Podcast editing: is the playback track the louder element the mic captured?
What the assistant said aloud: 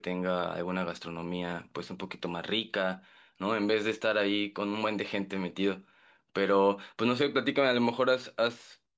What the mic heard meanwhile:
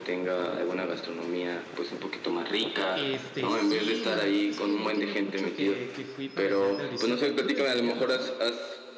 Yes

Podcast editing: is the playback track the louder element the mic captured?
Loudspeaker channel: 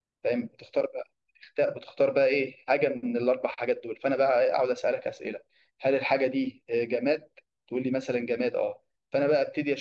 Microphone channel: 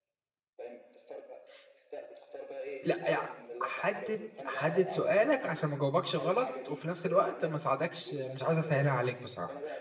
No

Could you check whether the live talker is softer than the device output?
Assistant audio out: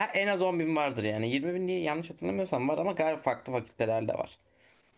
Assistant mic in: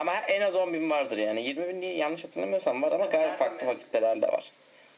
Yes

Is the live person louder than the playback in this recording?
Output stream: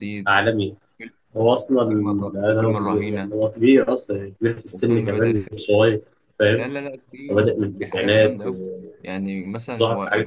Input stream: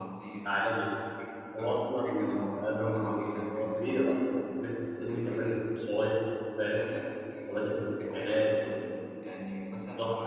No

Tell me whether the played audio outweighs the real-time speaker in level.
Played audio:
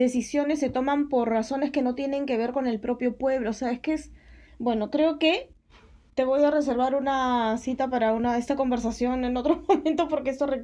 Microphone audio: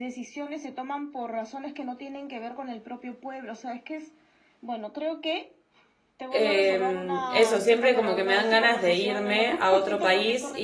No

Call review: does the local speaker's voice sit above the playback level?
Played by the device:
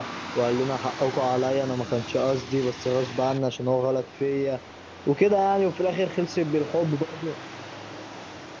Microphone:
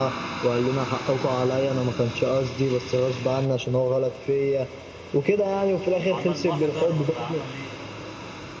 No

